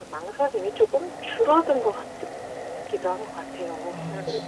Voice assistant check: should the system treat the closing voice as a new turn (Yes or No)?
Yes